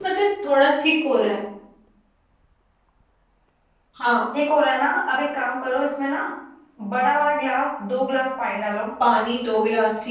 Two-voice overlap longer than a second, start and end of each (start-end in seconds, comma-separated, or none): none